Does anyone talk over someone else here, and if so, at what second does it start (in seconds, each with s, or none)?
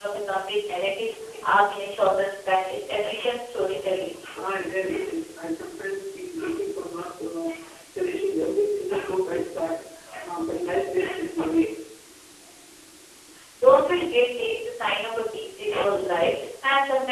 none